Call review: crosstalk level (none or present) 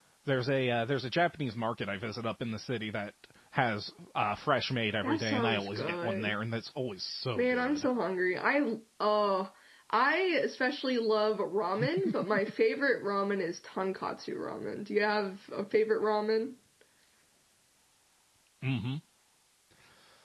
present